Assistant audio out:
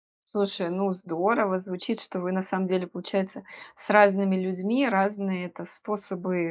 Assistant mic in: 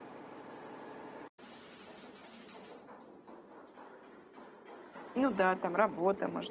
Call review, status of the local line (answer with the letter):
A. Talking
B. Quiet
A